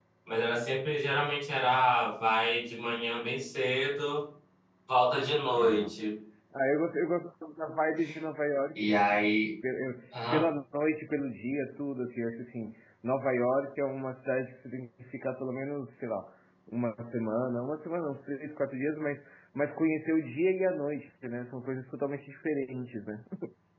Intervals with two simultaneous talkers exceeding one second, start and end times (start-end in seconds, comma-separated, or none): none